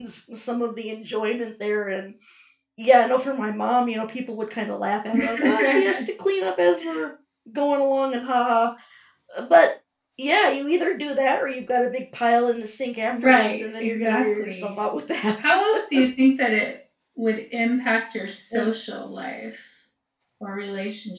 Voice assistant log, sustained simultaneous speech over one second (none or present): present